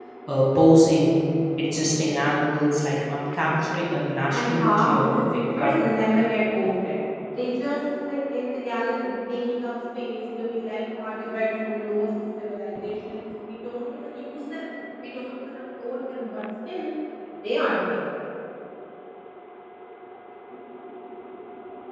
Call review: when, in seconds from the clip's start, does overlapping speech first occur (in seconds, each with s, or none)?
4.3 s